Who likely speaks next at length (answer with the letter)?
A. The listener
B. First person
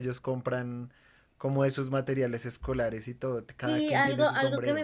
A